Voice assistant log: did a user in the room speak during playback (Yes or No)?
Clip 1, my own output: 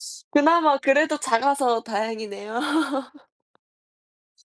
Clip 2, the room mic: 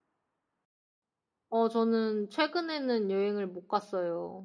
Yes